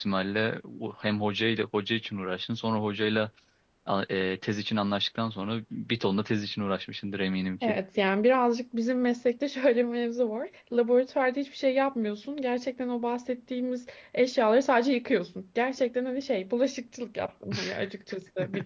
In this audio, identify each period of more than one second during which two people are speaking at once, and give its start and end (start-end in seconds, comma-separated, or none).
none